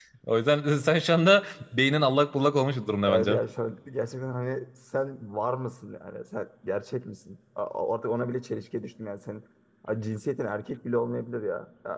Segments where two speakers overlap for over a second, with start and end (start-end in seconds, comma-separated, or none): none